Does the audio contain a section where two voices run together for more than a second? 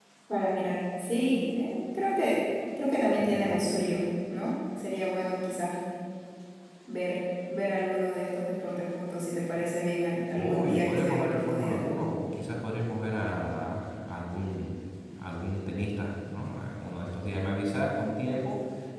Yes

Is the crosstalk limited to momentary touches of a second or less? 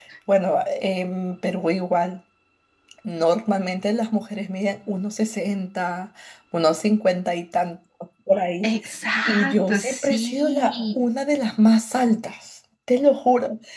No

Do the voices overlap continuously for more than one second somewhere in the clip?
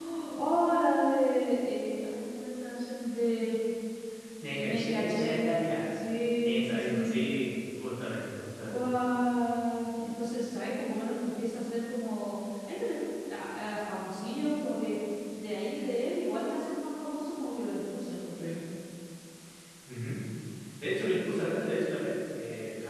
Yes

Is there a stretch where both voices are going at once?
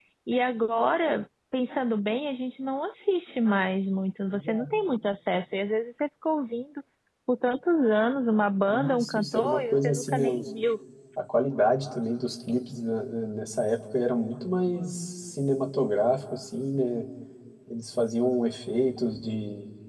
Yes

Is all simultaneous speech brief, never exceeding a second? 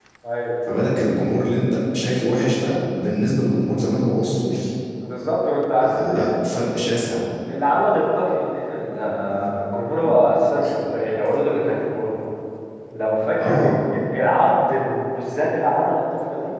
Yes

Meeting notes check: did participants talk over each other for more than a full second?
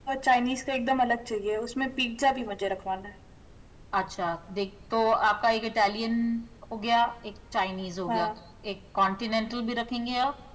No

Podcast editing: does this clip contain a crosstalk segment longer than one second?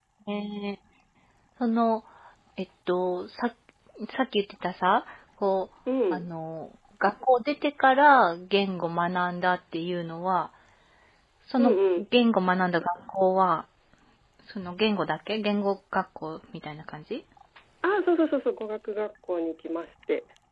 No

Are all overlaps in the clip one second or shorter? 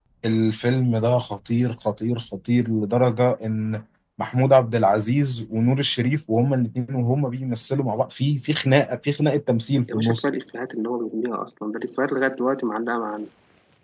Yes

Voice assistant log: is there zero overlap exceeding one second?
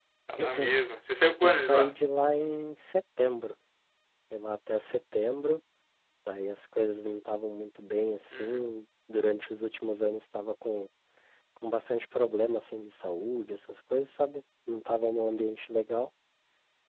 Yes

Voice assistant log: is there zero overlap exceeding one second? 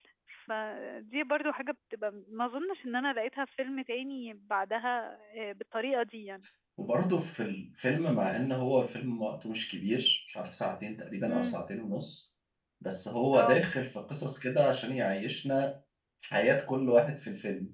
Yes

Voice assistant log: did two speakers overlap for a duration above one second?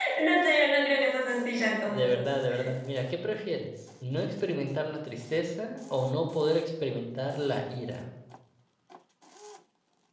No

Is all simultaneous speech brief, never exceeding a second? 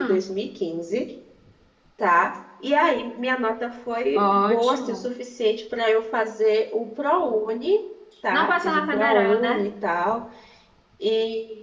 No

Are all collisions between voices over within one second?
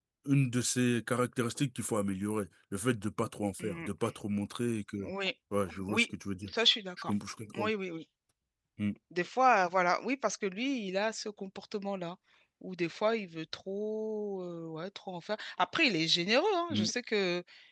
Yes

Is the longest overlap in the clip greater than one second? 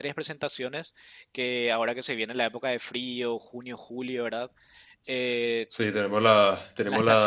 No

